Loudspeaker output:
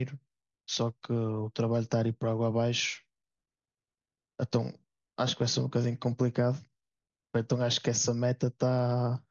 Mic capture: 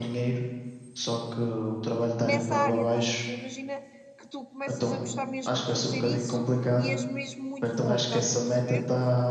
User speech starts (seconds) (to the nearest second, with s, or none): 2 s